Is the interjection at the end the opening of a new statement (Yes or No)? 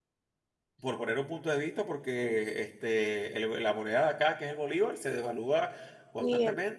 Yes